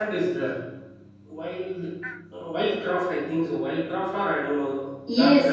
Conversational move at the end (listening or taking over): taking over